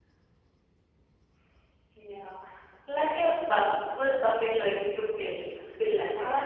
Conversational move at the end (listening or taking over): taking over